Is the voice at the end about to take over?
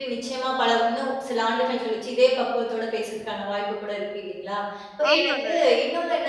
No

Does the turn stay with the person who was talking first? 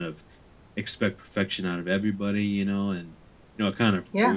Yes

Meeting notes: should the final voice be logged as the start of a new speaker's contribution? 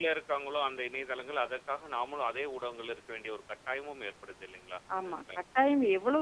Yes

